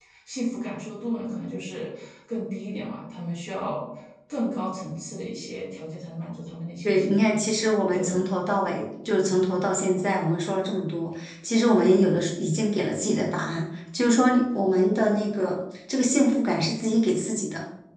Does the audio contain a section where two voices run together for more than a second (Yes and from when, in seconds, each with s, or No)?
No